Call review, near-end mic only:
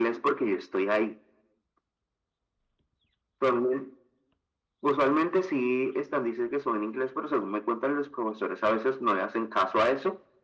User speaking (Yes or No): No